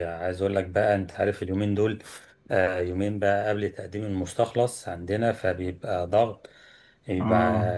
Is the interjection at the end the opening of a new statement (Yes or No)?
No